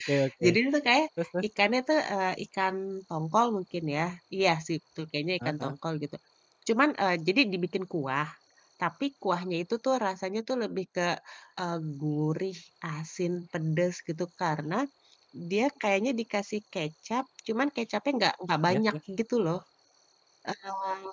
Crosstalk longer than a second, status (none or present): none